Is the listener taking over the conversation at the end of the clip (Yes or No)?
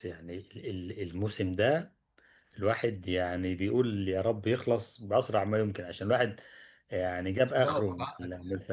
No